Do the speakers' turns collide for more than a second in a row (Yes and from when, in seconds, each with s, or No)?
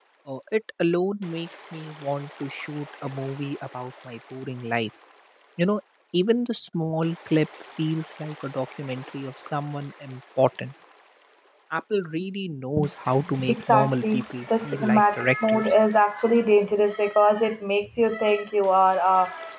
Yes, from 13.5 s